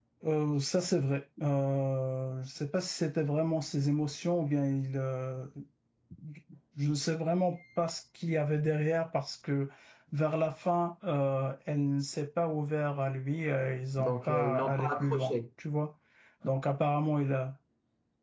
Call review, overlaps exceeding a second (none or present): present